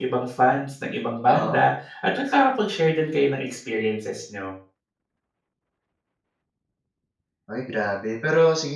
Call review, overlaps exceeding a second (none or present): none